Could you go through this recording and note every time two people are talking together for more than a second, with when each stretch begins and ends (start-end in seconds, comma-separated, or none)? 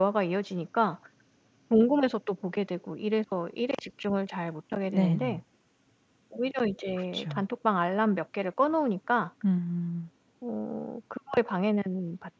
none